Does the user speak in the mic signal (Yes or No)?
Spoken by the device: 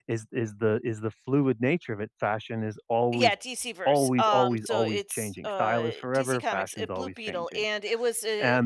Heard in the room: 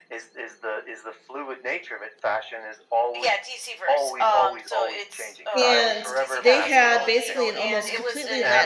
Yes